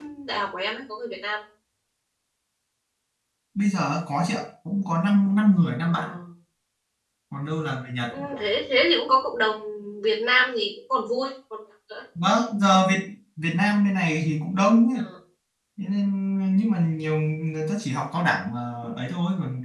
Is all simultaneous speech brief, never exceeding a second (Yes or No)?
Yes